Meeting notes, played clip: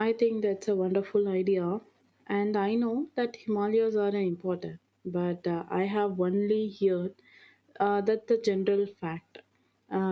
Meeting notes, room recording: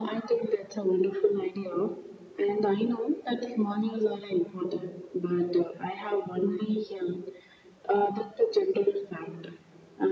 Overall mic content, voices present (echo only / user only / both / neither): echo only